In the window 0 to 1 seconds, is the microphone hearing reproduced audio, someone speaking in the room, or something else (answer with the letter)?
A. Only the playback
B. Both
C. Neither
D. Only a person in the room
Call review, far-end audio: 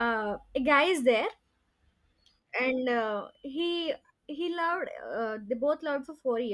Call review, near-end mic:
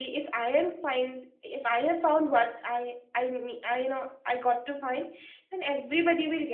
D